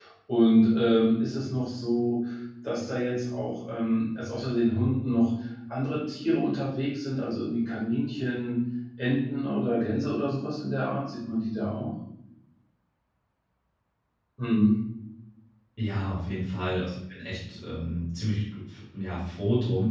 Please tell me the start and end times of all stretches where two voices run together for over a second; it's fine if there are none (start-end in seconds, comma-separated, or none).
none